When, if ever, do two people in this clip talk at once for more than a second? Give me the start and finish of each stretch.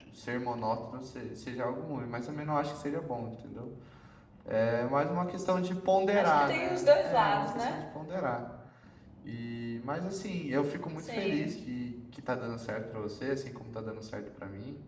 6.1-7.7

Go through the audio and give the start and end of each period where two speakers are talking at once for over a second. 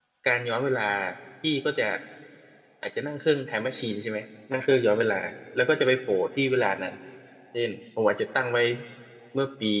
none

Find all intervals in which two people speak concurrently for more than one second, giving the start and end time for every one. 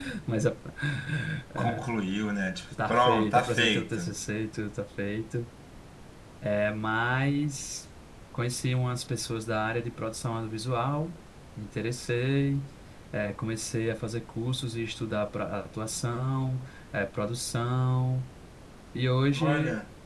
2.9-4.1

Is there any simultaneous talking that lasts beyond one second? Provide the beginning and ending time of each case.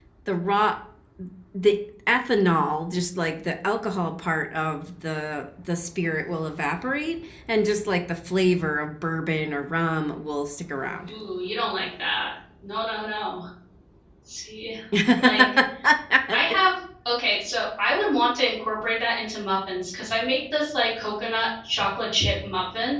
none

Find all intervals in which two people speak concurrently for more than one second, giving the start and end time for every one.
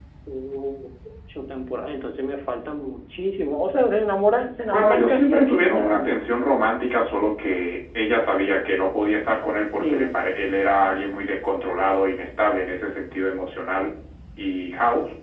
4.7-6.1

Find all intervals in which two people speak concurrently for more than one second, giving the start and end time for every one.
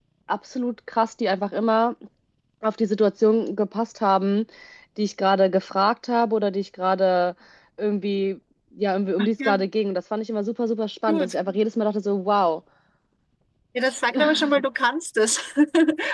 none

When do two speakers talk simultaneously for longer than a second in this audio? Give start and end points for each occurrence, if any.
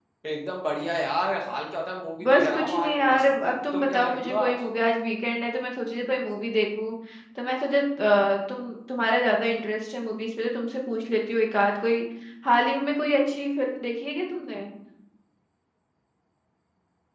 2.2-4.5

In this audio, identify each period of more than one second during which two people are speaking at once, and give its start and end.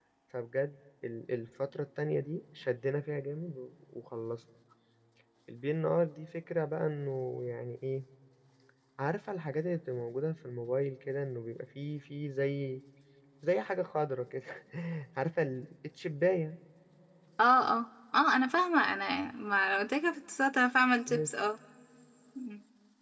none

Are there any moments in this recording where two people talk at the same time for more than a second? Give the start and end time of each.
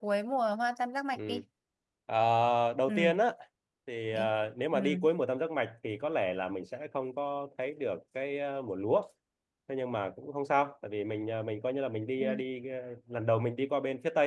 none

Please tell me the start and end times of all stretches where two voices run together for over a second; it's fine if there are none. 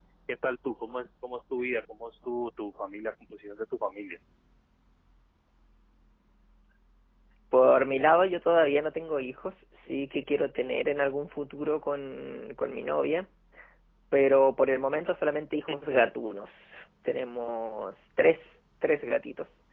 none

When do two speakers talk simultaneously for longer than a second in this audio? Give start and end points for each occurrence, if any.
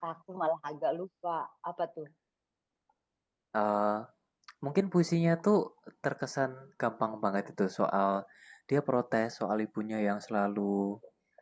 none

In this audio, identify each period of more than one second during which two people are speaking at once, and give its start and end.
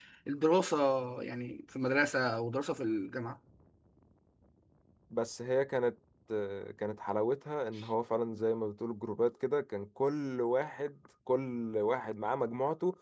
none

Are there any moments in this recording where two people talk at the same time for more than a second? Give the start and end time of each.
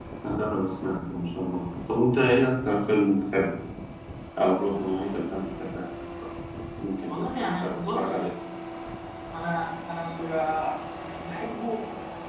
7.1-8.3

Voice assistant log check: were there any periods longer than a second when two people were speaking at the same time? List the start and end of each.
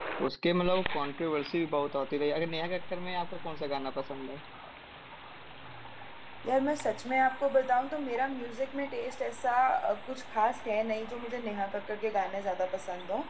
none

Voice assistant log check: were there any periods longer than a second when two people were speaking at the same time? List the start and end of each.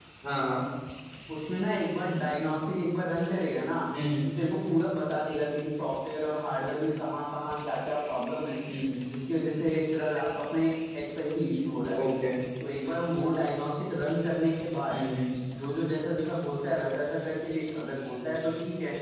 none

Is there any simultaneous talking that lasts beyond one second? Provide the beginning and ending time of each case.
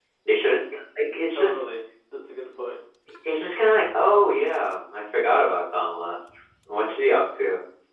none

